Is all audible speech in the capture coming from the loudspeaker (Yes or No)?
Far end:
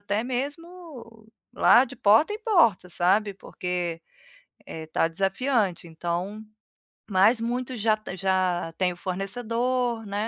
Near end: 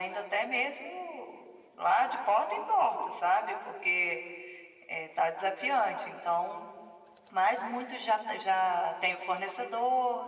Yes